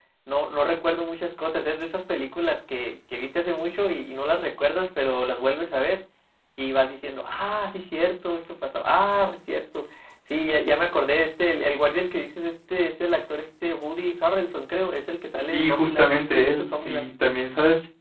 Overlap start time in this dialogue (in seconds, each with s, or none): 15.5 s